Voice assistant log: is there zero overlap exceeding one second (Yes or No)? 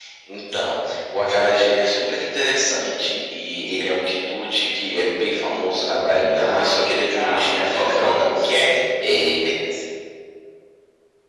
No